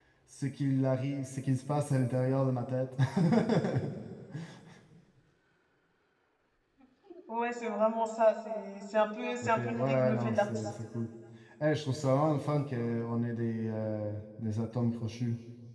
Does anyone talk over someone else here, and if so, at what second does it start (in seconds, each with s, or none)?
9.4 s